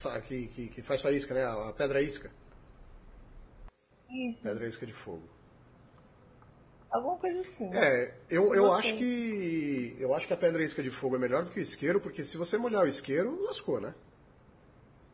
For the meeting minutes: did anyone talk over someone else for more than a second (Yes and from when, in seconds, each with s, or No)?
No